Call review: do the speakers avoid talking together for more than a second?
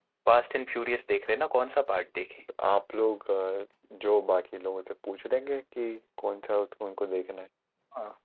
Yes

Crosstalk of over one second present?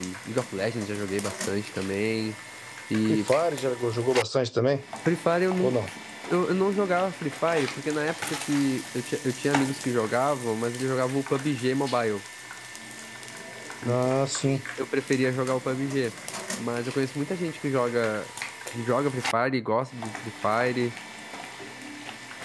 No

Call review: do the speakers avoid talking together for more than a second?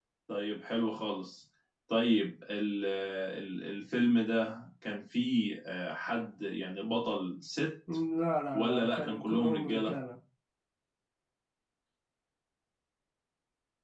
No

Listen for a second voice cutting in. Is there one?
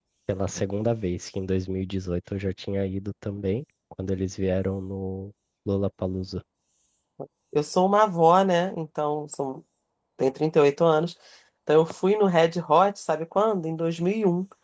No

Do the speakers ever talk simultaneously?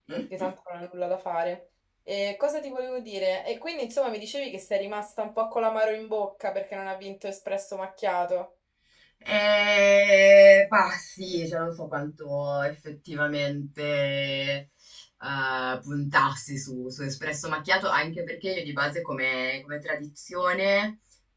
No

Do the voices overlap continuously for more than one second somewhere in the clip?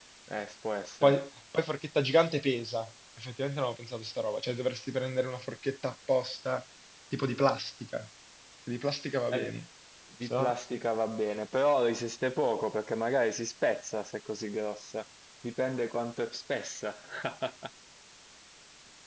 No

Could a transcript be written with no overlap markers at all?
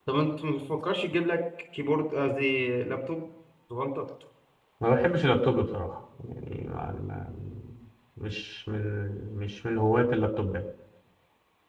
Yes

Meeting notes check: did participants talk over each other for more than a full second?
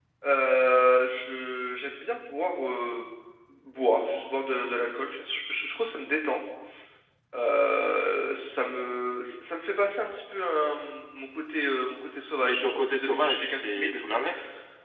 Yes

